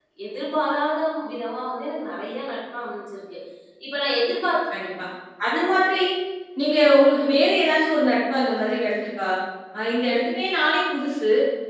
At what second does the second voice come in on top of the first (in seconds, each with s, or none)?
none